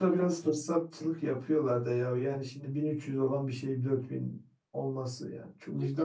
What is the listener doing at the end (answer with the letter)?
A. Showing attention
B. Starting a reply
B